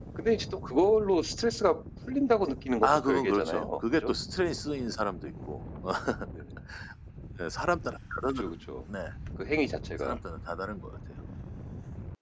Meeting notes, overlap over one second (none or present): present